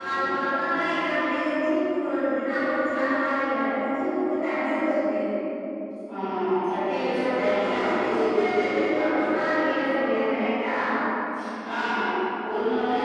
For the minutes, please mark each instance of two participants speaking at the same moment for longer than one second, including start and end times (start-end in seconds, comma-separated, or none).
7.1-9.3